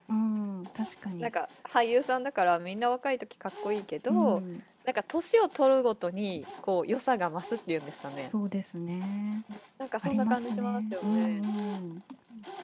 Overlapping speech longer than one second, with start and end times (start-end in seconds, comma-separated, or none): 10.0-11.4